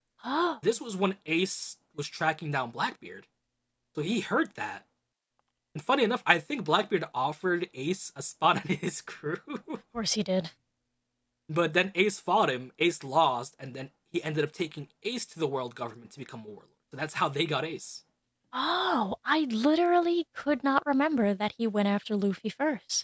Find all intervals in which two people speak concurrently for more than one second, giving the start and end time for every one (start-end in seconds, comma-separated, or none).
none